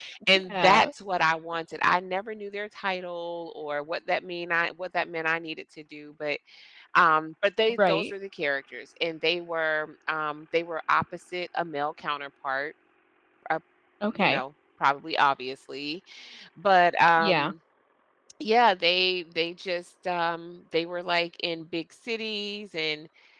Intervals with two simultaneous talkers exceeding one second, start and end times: none

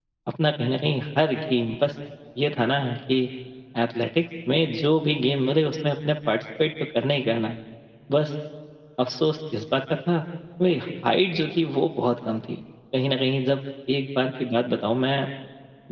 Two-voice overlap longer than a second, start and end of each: none

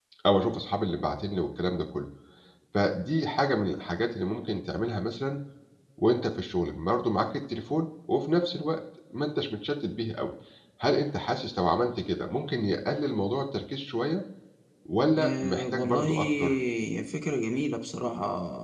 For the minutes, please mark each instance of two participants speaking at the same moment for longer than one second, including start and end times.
15.2-16.5

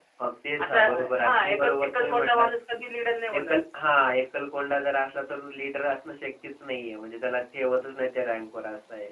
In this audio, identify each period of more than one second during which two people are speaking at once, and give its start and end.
0.6-2.5

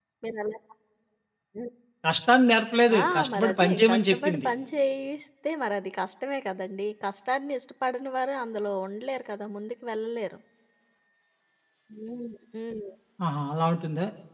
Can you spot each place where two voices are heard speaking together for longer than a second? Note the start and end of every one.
3.0-4.5

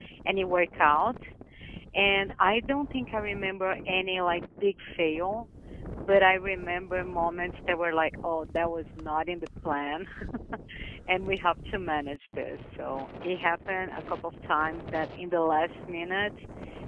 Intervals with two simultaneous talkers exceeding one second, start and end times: none

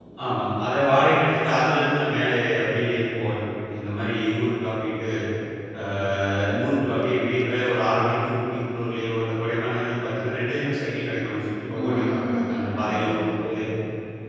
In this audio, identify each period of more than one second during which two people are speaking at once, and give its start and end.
11.8-13.2

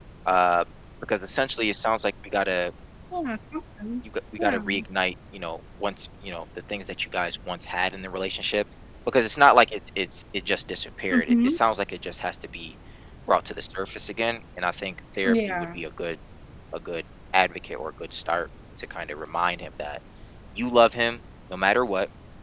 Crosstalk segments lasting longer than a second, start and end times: none

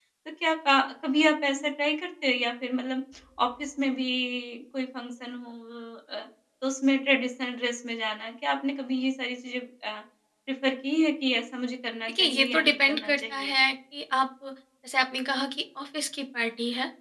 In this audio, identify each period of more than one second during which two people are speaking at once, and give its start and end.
12.1-13.5

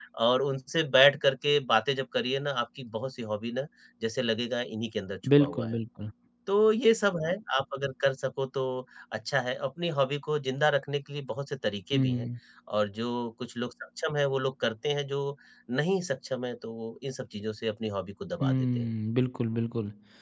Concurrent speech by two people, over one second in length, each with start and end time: none

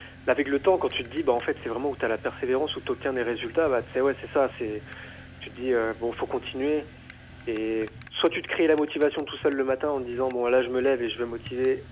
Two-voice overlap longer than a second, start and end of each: none

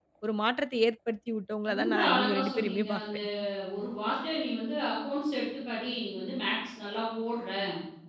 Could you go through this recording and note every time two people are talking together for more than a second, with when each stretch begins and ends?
1.7-3.2

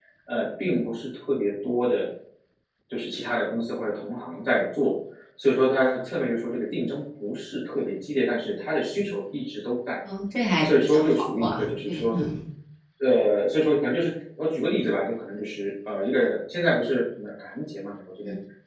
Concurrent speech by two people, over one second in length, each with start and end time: 10.6-12.0

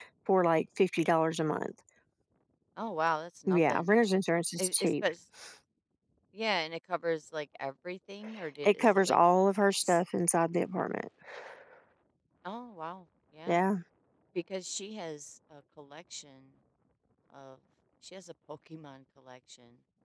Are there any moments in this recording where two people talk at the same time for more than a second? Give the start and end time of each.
none

